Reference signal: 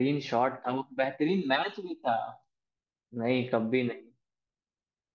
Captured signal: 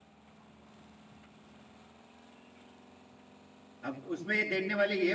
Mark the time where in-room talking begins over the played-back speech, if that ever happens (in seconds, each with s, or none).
3.8 s